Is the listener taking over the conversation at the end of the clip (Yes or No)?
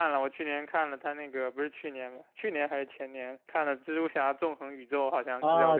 Yes